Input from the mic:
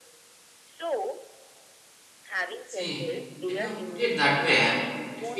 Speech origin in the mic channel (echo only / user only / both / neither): both